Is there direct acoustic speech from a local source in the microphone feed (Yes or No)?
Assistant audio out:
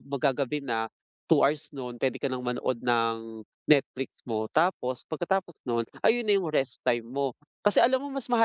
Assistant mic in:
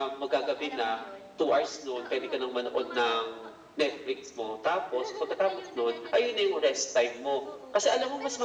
Yes